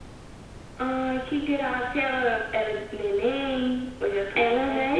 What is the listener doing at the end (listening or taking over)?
taking over